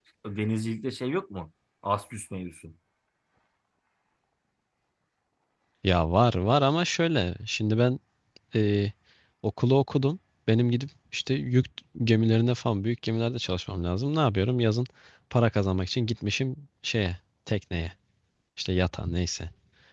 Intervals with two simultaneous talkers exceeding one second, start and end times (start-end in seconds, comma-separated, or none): none